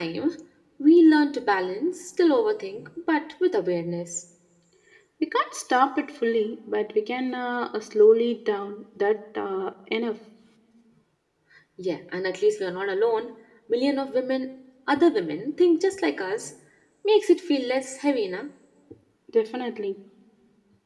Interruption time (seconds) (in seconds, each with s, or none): none